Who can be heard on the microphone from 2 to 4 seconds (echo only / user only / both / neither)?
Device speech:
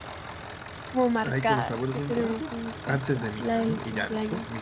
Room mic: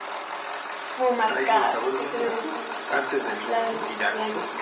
echo only